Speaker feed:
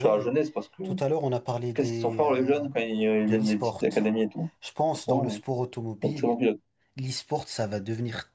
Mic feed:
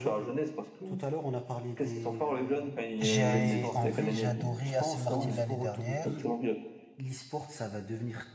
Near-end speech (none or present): present